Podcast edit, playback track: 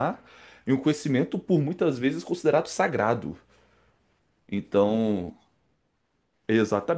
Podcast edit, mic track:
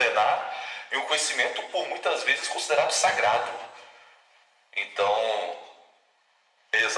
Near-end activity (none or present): none